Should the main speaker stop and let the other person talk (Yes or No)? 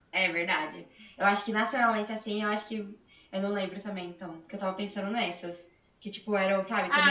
Yes